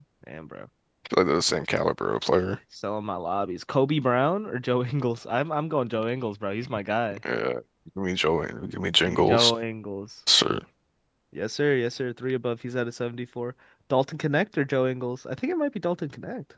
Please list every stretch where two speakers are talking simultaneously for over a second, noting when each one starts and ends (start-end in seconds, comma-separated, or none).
none